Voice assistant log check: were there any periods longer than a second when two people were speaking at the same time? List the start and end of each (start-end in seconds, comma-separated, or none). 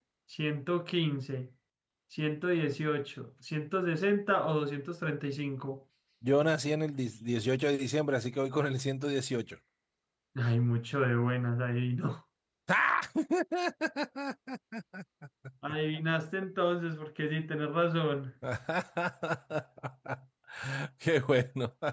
none